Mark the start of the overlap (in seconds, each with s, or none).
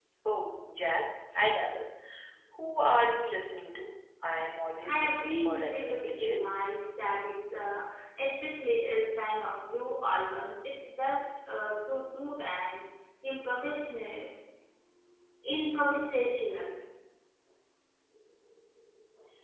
4.8 s